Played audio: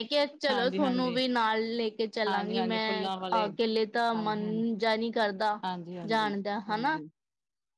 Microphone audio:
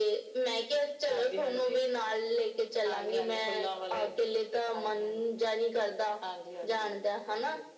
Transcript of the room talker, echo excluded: none

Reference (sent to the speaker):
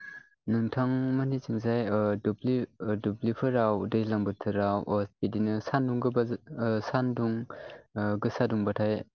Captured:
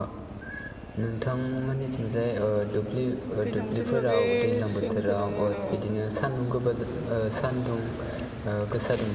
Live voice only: दैज्लां बोथोरनि बागै सोंनोथ' दङ र'

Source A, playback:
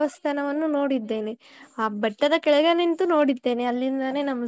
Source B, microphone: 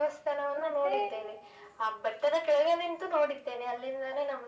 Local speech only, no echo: ಮತ್ತೆ

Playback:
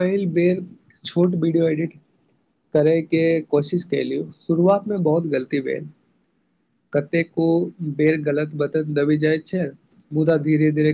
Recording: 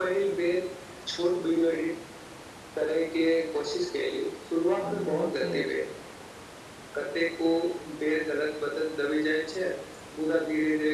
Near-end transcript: अनुभवसँ

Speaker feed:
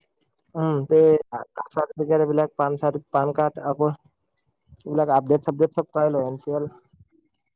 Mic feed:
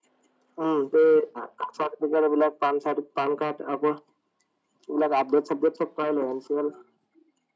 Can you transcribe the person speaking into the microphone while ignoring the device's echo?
none

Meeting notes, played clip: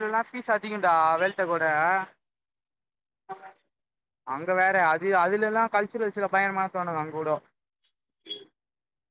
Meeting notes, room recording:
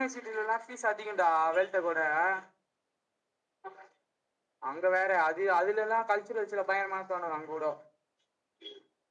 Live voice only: none

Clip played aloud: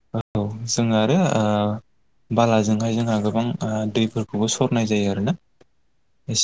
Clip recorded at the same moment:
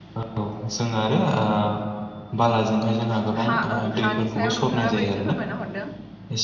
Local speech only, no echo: हा ओं हानि सायाव नोंथांङाबो एसे फोरमायना हरदों

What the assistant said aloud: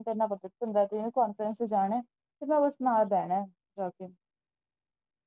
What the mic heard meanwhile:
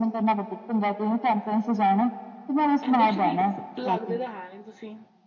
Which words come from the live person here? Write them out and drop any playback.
ਇੰਨੇ ਸ਼ਰੀਫ ਲੱਗਦੇ ਤਾ ਹੈ ਨੀ ਤੁਸੀਂ।

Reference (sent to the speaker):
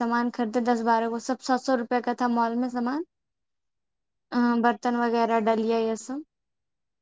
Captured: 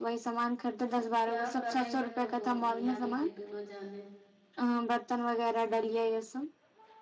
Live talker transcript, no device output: اب کیا کریں گے ج وہ میاں بیوی دونوں جانیں

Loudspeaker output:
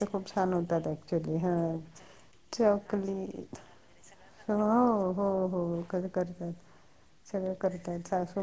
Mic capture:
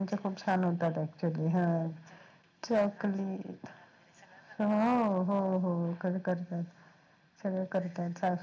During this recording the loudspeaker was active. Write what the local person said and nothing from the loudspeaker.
none

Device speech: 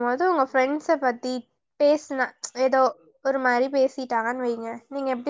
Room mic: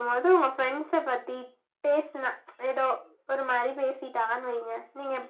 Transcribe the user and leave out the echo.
none

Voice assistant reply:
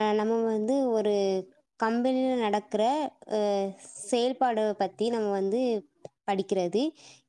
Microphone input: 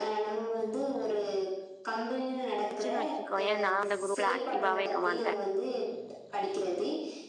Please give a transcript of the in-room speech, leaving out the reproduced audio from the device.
வச்சுன் வச்சுக்கோயே நா அந்த குரூப்ல ஆக்டிவாவே இக்க மாட்டே

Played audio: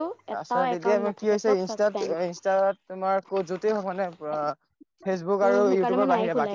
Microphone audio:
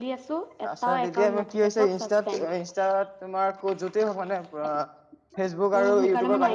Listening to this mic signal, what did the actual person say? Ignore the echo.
none

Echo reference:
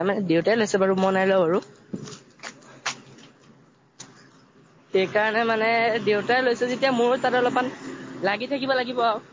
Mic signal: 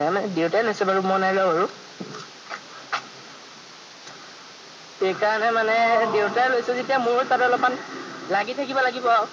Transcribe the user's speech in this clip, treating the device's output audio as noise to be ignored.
অঁ

